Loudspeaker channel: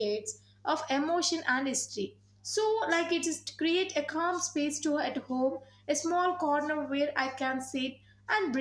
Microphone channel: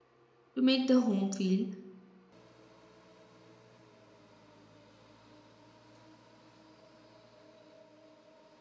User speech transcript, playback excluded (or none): to make the home feel